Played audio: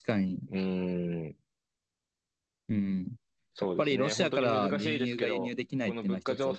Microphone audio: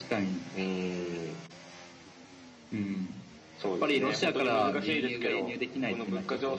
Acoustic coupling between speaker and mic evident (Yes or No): Yes